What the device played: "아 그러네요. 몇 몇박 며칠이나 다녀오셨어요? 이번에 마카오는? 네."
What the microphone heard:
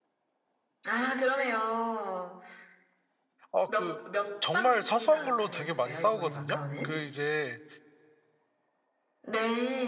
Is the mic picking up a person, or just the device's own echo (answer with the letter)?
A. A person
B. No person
A